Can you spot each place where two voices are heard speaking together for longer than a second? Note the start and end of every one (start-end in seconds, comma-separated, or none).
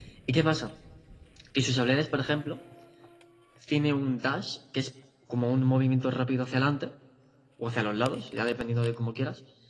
none